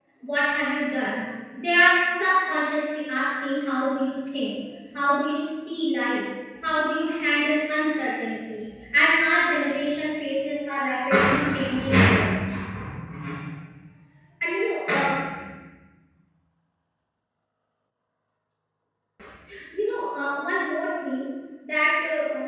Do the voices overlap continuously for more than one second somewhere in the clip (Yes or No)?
No